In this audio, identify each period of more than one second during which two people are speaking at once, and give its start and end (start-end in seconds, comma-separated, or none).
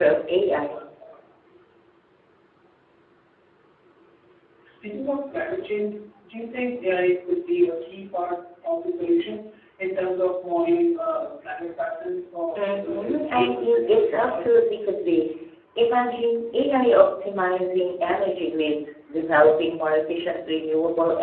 12.6-14.6